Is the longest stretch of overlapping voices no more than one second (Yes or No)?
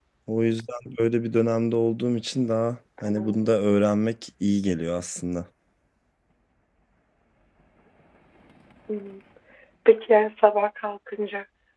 Yes